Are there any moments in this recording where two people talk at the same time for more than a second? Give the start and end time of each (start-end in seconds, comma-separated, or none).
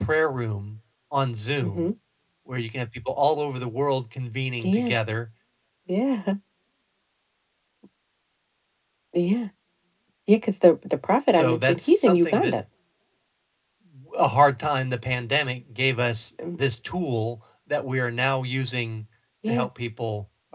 11.3-12.6